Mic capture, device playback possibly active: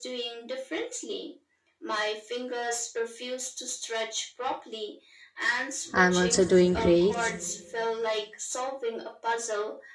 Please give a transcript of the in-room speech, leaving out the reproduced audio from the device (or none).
I'm also doing great.